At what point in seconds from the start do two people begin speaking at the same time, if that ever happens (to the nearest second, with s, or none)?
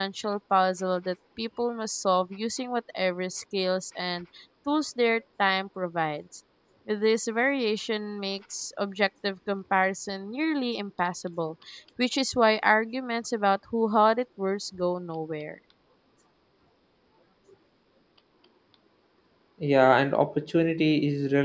none